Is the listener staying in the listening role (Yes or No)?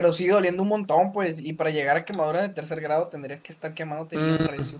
No